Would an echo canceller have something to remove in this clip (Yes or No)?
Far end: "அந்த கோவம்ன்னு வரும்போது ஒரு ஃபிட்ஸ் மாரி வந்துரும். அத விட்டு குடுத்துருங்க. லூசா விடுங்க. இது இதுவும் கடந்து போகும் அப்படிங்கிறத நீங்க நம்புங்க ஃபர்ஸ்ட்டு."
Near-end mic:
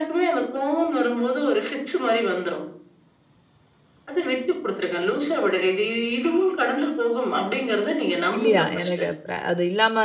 Yes